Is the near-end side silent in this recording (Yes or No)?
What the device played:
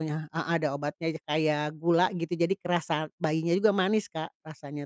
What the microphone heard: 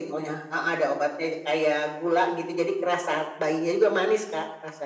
Yes